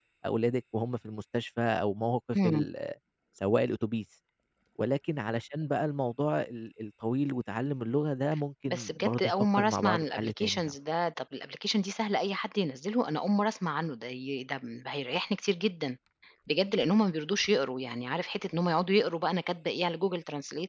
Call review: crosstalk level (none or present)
present